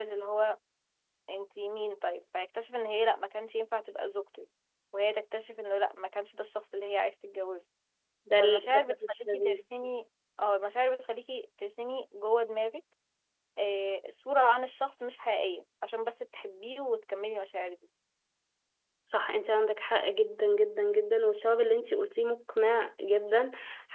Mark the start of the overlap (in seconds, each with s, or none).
8.4 s